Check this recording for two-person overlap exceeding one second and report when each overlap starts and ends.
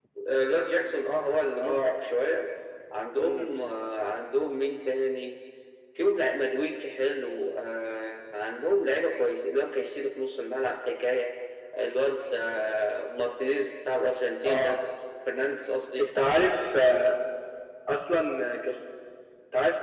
none

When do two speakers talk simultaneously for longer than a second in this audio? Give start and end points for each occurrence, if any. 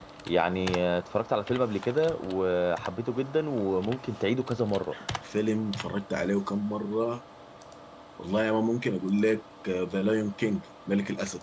none

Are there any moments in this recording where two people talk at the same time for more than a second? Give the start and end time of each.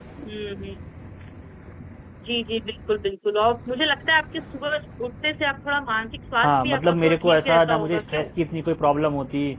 6.4-8.2

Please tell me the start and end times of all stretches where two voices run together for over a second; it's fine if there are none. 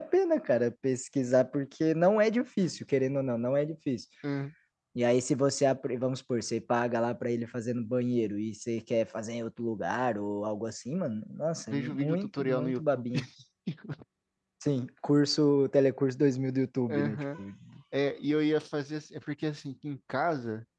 11.7-13.0

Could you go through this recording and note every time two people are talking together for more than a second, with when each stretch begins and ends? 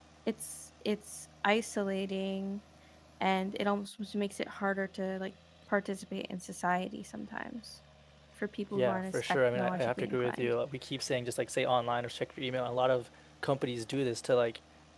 8.8-10.5

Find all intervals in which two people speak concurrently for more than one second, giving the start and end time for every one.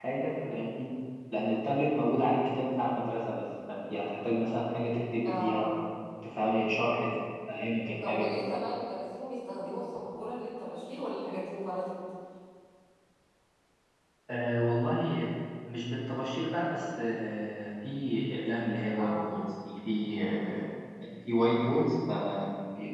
none

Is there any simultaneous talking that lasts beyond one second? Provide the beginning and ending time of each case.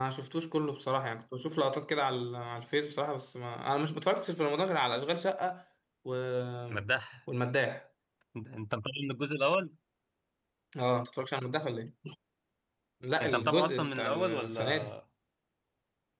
13.2-14.9

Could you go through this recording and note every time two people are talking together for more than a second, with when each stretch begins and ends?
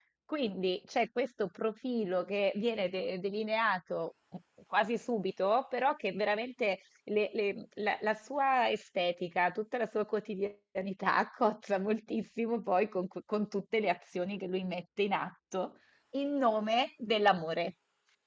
none

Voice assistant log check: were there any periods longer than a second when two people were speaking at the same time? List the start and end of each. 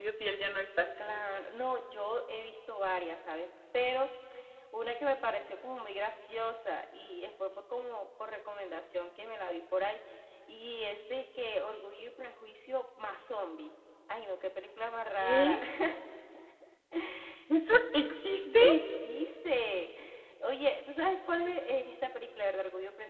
none

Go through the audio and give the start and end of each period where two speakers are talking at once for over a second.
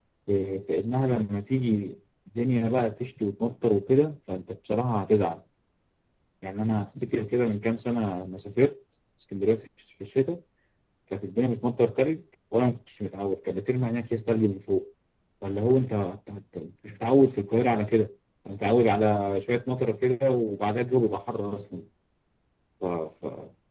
none

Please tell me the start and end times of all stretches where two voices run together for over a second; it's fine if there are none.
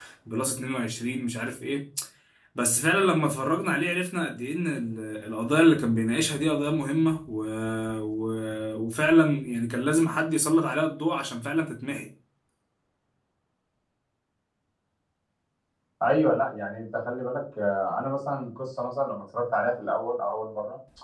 none

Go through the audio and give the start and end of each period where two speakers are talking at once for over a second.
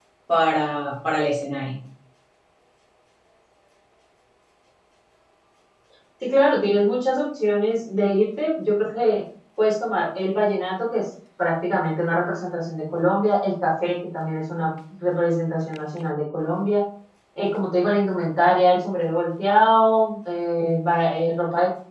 none

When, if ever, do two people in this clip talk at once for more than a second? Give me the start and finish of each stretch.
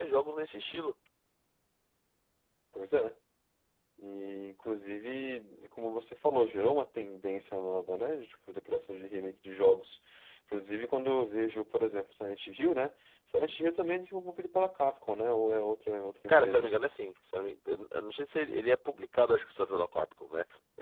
none

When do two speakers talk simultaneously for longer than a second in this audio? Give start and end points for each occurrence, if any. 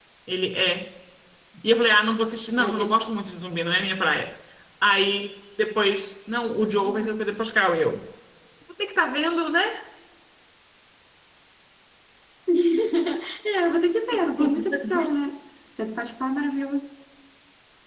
14.1-15.3

